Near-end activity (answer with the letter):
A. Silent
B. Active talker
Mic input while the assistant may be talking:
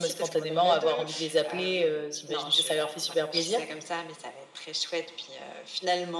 A